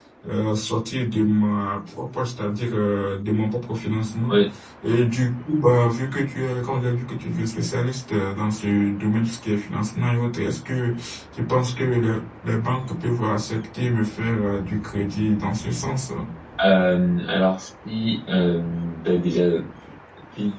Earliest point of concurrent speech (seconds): none

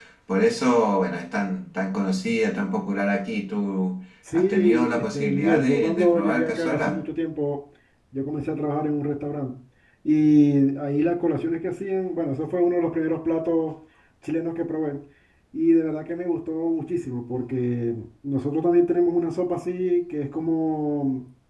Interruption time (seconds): 4.3 s

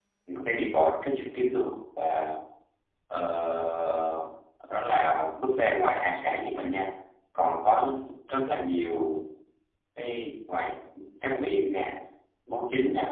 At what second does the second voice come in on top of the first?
none

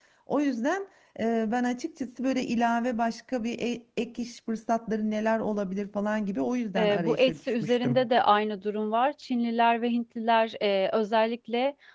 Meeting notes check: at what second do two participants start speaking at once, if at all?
6.8 s

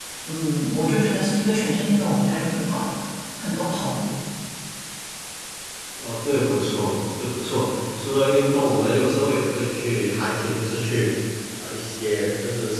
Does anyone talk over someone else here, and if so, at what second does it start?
none

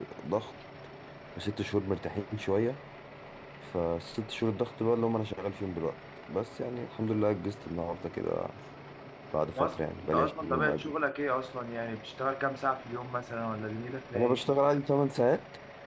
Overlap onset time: 9.6 s

